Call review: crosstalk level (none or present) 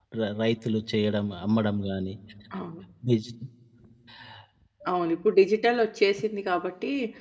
none